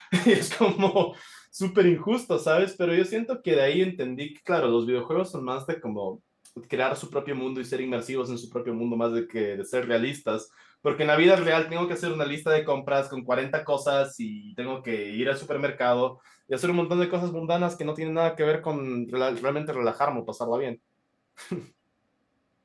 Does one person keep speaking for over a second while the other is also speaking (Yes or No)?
No